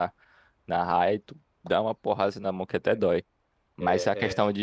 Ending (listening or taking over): listening